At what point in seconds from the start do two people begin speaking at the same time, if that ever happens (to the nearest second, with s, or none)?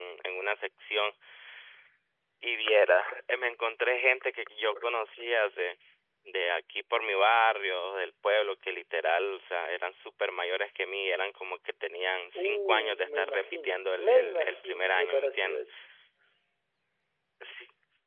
12 s